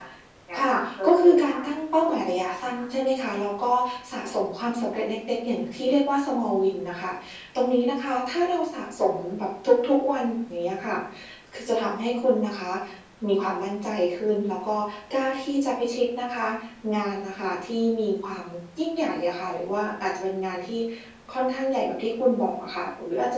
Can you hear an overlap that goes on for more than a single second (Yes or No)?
Yes